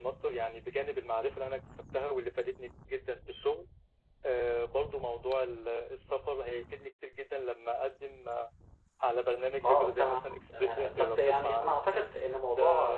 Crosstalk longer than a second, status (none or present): present